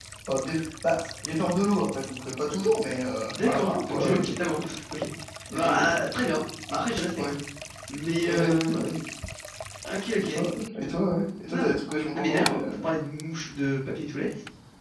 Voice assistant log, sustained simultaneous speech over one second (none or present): present